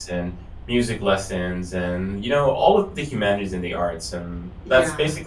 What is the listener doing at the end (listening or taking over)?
listening